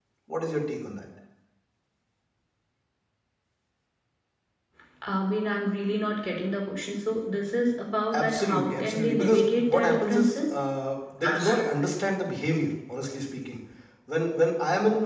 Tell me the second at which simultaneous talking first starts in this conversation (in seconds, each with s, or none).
8.1 s